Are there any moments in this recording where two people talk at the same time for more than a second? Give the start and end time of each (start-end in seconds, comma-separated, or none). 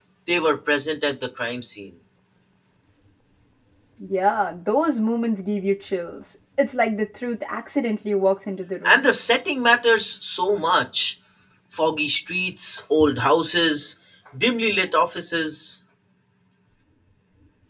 none